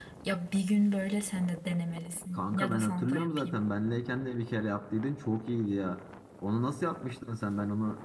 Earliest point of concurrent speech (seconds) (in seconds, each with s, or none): 2.3 s